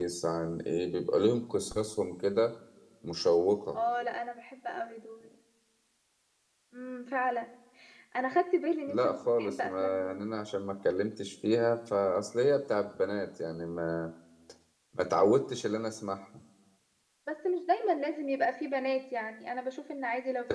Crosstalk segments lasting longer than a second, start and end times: 8.9-10.3

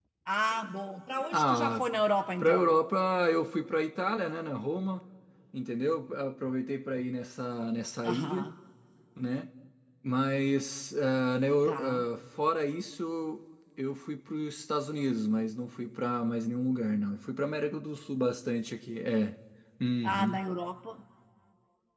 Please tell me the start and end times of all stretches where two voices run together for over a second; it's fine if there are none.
none

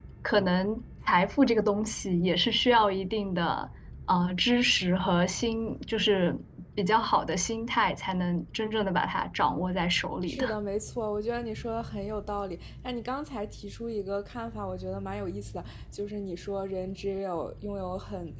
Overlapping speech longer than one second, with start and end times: none

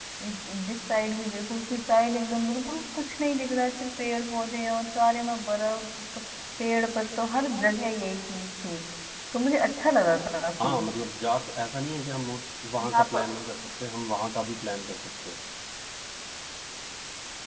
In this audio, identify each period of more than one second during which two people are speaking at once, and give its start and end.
none

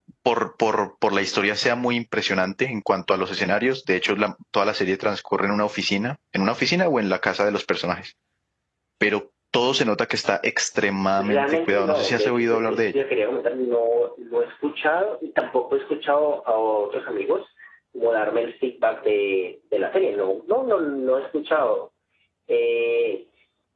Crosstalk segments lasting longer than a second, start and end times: 11.2-13.0

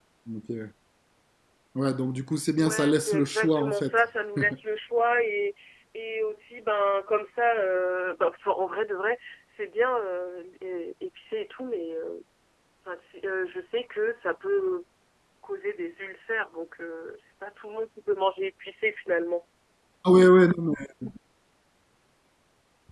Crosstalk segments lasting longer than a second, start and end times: 2.6-3.9

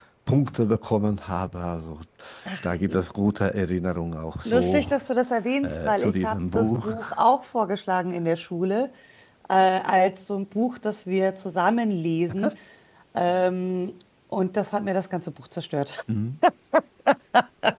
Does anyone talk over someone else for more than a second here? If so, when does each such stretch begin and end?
5.6-6.9

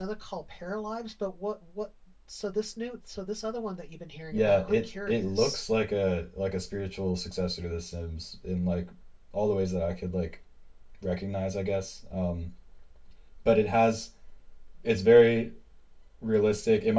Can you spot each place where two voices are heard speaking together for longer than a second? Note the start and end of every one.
4.3-5.6

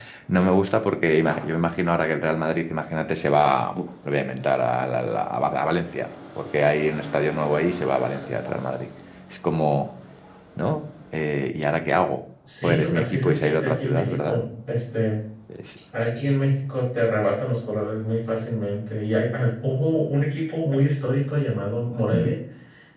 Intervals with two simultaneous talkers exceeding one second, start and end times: 12.6-14.4

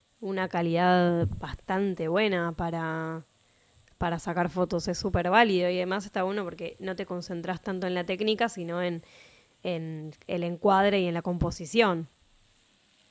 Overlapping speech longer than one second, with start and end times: none

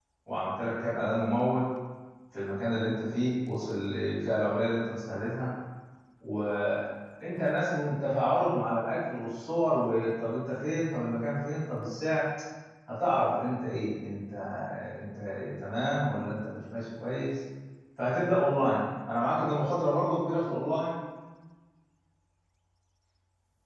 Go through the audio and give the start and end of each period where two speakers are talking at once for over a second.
none

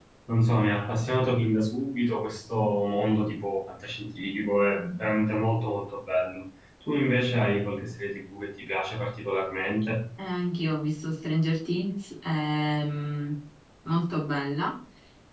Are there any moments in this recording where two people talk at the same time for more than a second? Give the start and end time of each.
none

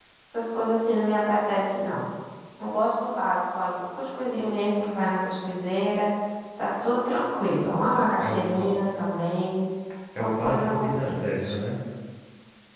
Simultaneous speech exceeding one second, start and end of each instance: 10.2-11.5

